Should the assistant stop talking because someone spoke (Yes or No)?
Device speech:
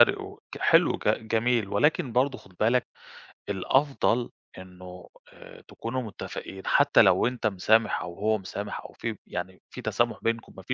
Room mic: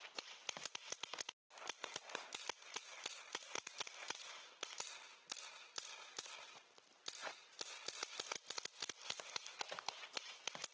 No